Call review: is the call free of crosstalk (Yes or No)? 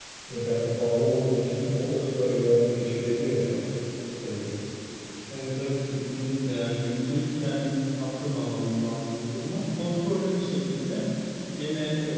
Yes